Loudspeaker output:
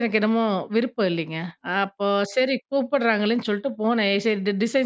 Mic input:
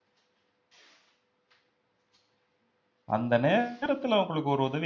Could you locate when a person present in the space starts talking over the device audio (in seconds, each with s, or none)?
3.1 s